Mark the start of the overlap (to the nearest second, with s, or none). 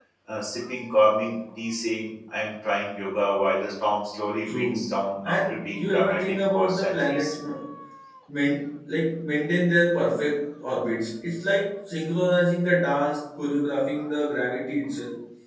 4 s